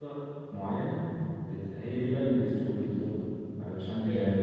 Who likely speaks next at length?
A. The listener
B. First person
B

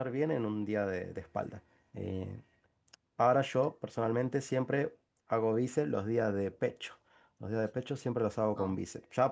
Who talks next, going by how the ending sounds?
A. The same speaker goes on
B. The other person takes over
A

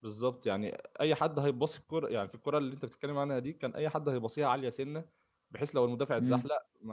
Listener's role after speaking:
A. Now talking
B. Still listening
B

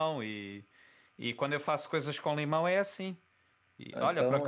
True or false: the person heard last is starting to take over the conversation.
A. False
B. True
A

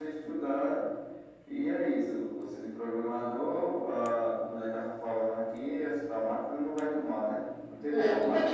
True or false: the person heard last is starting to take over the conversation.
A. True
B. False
A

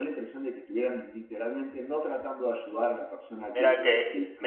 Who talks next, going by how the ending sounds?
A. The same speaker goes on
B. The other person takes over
B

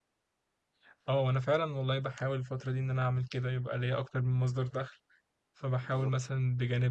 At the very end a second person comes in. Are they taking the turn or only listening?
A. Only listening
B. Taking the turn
A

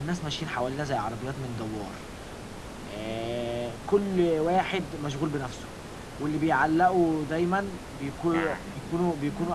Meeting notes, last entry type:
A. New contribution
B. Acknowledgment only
B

